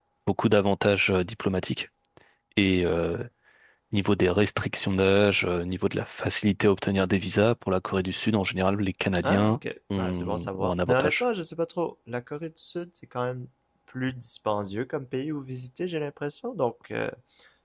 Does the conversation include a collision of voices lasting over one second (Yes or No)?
Yes